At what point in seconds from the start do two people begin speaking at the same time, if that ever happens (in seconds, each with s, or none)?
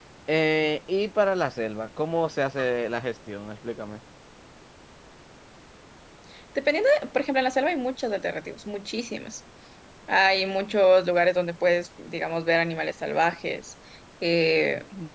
none